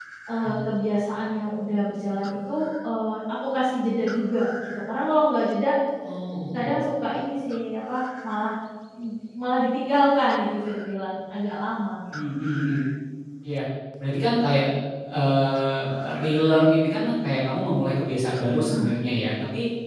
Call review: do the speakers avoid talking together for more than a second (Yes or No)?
Yes